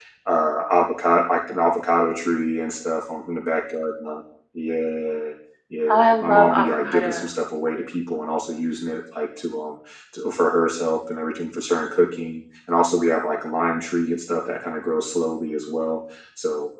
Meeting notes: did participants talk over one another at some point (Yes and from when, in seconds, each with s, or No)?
Yes, from 5.9 s